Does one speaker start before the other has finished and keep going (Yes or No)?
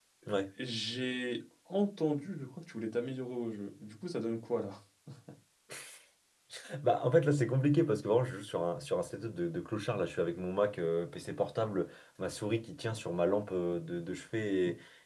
No